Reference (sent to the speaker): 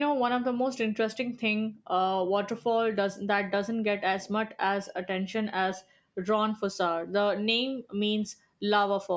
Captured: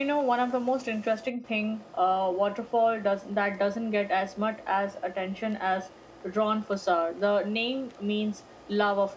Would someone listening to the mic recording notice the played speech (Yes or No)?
Yes